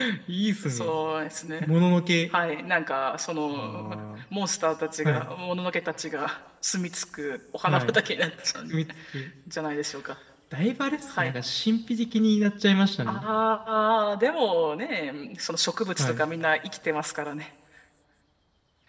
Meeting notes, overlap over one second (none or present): none